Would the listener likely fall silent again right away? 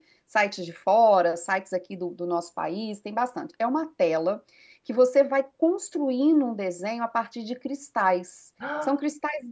Yes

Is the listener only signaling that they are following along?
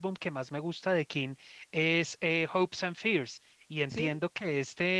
Yes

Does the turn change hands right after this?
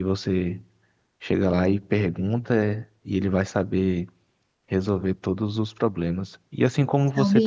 No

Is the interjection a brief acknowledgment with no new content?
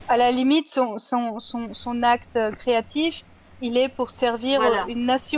Yes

